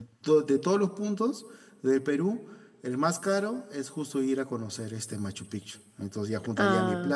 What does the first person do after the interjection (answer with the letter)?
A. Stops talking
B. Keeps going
B